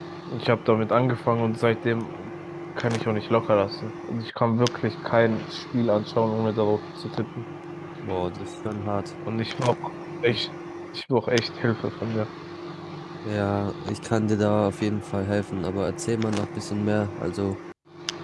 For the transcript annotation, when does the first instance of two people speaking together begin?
none

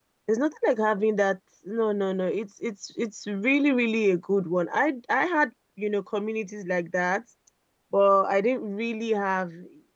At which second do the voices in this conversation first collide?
none

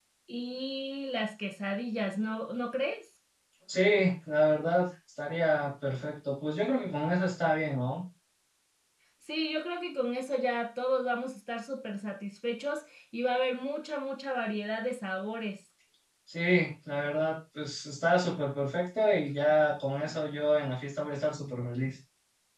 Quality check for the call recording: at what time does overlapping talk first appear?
none

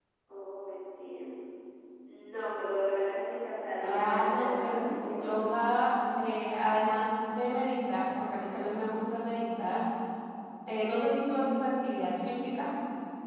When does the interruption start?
3.8 s

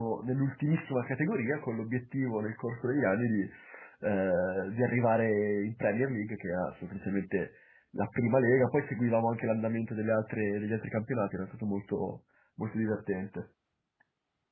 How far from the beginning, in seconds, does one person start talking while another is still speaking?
none

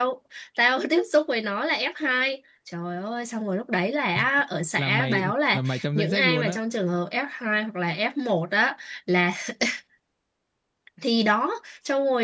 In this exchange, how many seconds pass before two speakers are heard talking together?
4.8 s

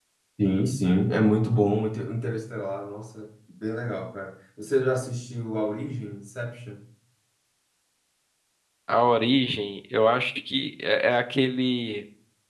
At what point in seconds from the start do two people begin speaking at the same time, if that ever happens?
none

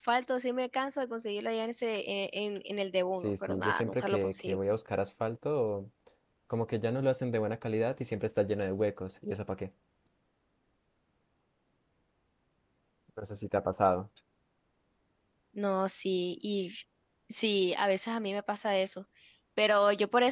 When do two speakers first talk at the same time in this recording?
3.1 s

